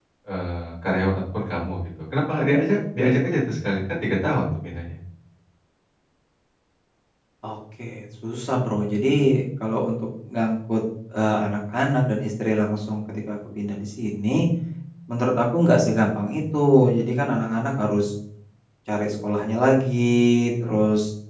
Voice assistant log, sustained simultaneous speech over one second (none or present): none